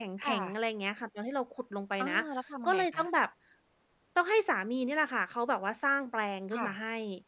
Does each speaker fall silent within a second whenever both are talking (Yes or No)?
Yes